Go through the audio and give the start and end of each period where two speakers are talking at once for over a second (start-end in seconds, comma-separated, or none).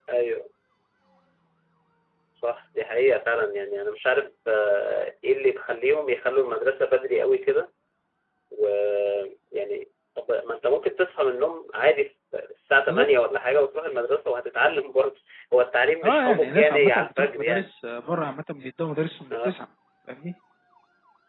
16.0-17.7